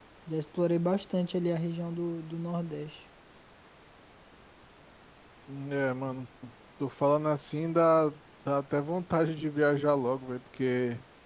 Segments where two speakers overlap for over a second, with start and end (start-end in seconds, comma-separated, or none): none